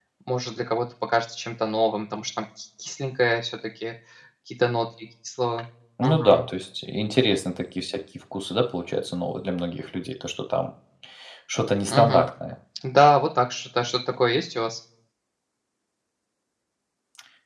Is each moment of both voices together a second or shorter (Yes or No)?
Yes